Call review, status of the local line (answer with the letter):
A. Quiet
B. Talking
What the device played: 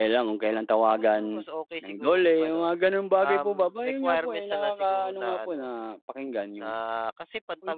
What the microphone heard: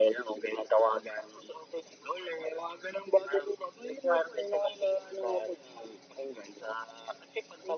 A